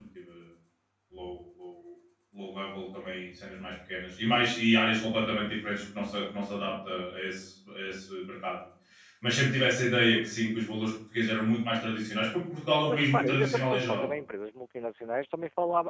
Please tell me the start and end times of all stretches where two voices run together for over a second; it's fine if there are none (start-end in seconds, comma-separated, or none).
12.9-14.1